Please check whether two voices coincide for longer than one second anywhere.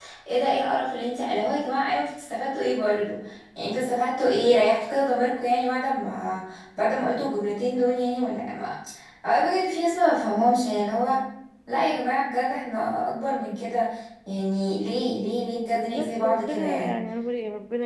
Yes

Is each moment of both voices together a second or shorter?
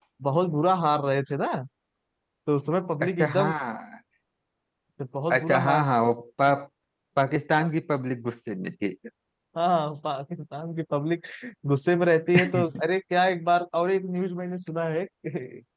Yes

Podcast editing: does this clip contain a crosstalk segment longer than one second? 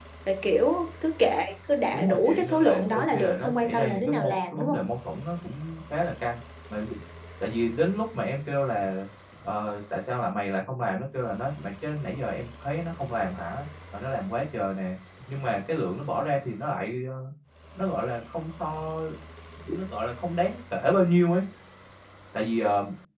Yes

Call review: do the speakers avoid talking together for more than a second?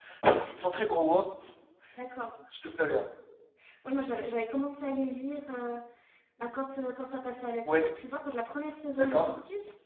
Yes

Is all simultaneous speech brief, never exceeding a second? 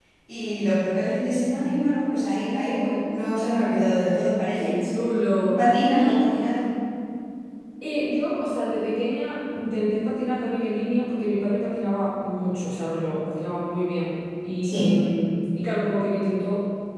Yes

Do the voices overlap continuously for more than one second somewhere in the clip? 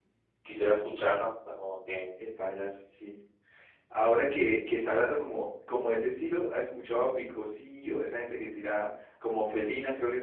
No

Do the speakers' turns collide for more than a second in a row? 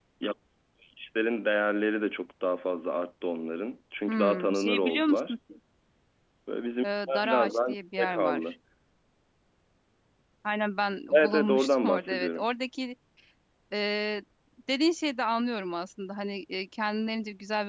Yes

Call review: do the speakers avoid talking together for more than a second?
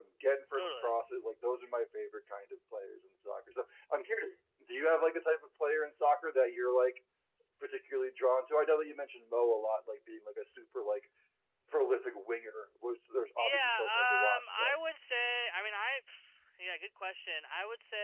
No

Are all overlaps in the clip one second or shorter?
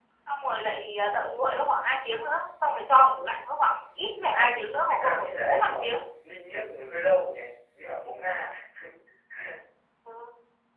No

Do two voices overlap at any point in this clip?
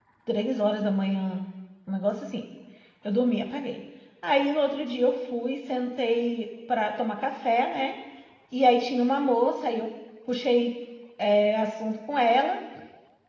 No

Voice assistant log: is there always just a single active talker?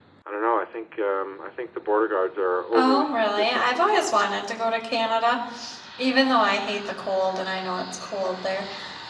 No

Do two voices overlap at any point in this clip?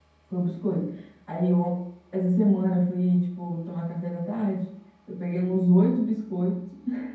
No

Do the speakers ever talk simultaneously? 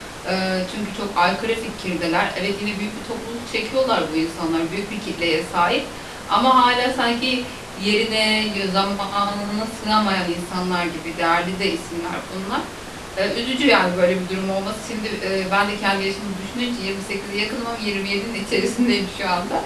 No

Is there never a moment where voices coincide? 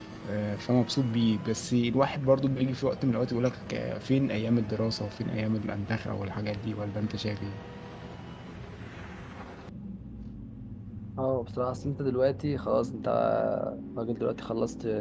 Yes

